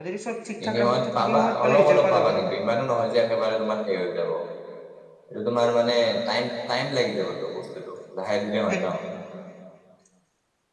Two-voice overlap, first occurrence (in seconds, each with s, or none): 0.6 s